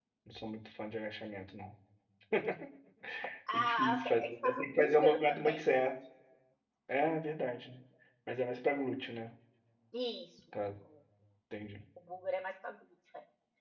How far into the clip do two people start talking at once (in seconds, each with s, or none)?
3.5 s